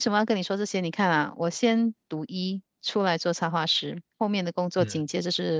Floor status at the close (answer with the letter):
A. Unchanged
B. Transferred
A